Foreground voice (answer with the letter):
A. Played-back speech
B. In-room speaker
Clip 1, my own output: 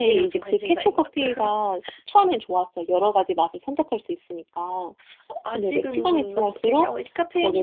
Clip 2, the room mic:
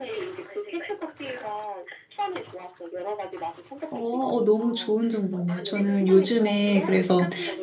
B